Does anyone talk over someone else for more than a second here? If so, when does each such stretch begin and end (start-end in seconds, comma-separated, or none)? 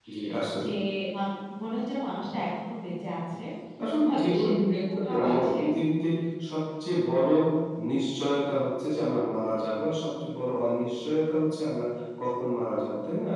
4.1-5.6